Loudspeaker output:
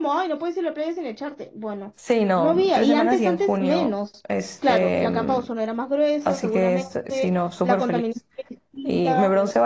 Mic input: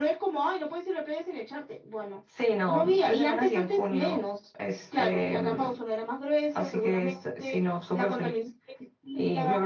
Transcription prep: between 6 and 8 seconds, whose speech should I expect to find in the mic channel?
echo only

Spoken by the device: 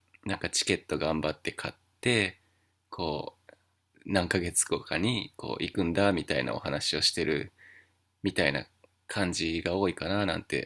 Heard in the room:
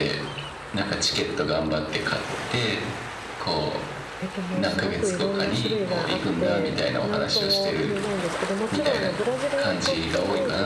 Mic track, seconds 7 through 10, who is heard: both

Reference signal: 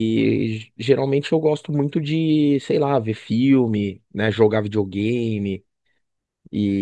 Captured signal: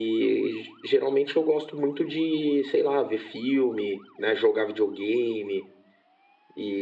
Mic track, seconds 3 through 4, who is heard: echo only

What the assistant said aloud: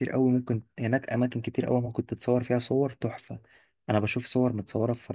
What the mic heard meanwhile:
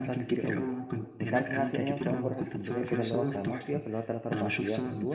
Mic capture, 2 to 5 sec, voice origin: both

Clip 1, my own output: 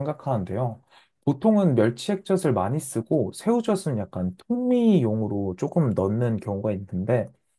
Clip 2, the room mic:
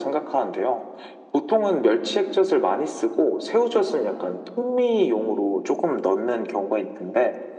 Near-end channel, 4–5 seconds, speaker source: echo only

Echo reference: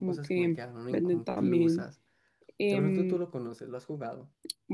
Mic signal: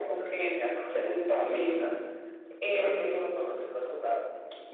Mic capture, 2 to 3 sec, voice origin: echo only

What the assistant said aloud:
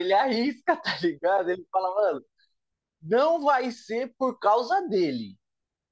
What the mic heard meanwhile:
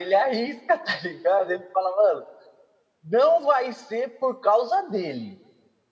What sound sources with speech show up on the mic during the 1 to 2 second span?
echo only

